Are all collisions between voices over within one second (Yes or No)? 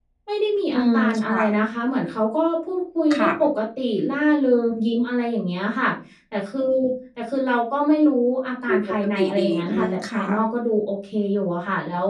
No